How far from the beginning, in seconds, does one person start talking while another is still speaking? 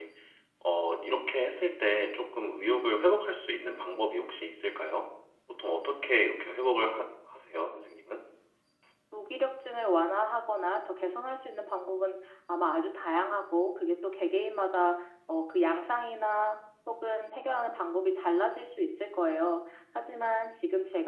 none

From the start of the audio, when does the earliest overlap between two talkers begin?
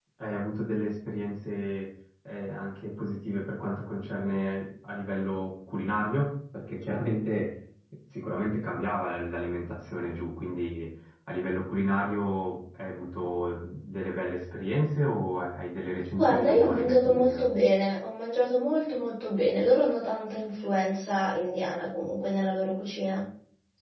16.2 s

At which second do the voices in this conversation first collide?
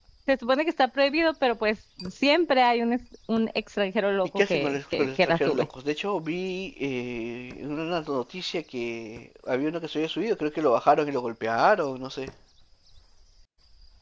4.4 s

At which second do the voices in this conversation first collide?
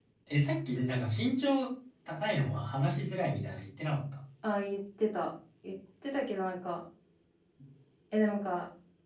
none

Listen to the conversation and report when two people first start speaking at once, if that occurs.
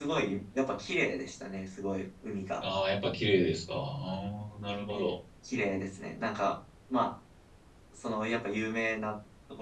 none

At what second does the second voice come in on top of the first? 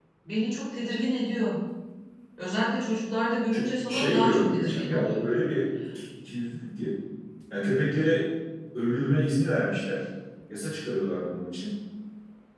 3.5 s

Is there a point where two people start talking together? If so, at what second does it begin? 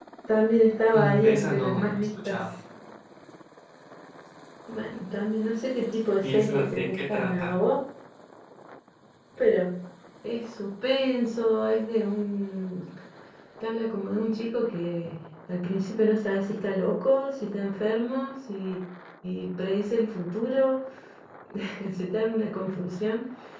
0.9 s

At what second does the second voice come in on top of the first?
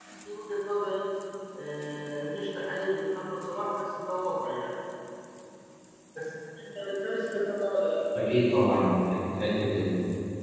none

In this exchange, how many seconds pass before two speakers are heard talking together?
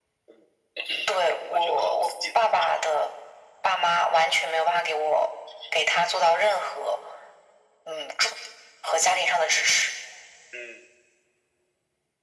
1.5 s

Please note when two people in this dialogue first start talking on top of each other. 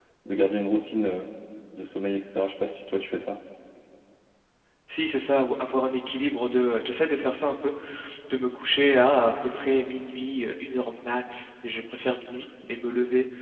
none

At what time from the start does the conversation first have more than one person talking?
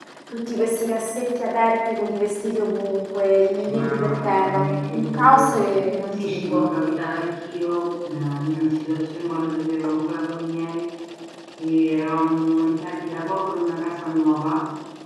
3.6 s

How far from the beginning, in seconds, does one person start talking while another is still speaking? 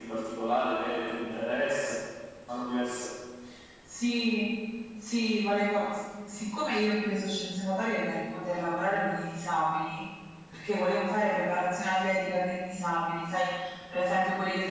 none

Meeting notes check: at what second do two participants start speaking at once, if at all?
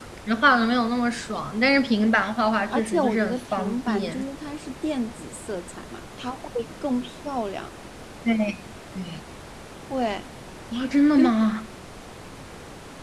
2.7 s

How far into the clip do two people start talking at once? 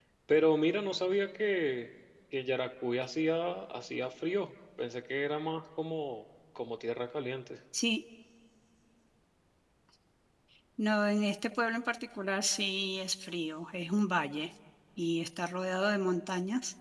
none

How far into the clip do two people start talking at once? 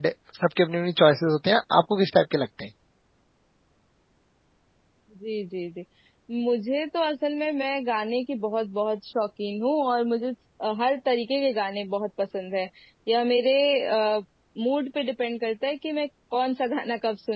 none

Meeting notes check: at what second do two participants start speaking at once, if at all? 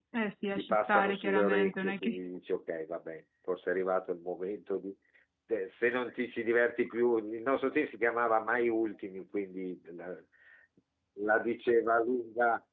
0.6 s

